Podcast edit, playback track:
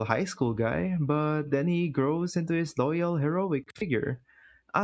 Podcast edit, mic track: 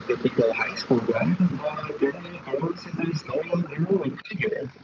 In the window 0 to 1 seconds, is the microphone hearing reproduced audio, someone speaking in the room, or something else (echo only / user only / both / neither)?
echo only